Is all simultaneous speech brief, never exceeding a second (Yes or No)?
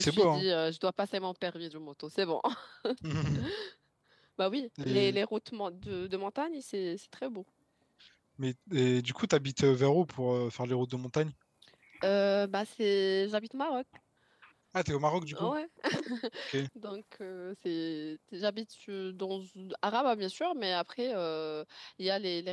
Yes